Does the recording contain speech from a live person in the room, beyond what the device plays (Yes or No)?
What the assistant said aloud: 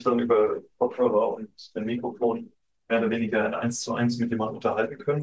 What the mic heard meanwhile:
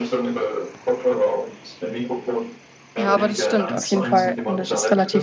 Yes